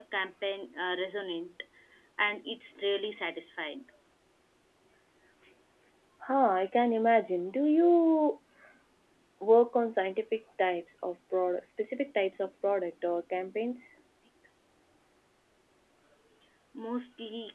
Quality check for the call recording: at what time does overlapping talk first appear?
none

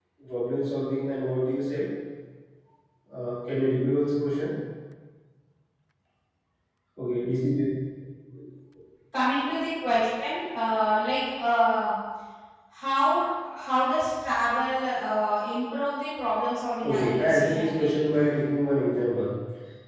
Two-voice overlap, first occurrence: 16.8 s

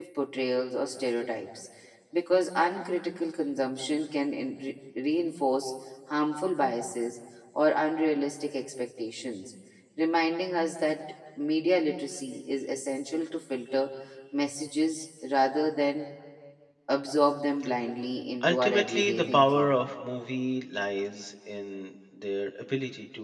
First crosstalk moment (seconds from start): 18.4 s

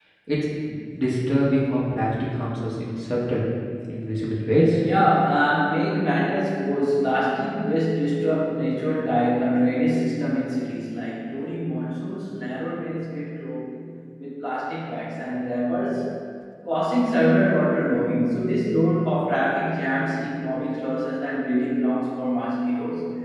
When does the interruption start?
none

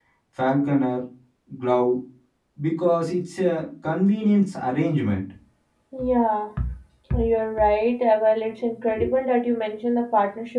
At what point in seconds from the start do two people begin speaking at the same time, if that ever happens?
none

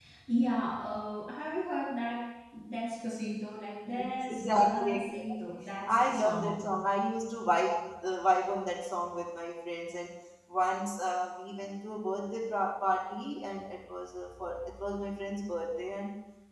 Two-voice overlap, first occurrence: 4.0 s

